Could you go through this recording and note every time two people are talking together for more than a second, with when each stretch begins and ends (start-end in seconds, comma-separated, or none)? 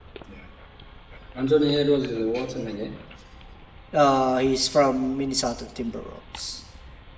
none